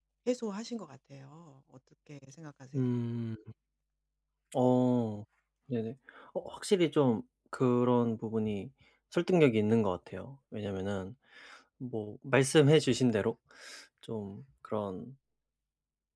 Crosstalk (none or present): none